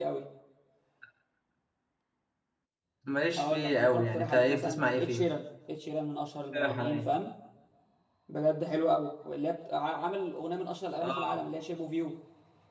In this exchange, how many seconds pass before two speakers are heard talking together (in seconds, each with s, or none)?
3.4 s